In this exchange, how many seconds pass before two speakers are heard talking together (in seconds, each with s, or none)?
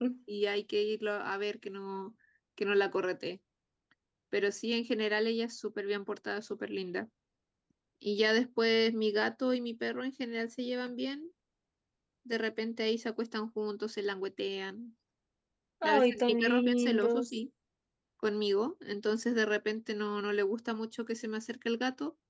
15.8 s